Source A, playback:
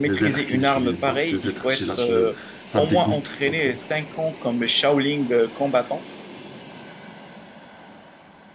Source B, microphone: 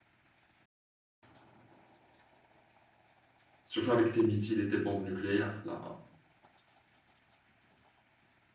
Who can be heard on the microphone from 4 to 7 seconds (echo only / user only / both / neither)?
user only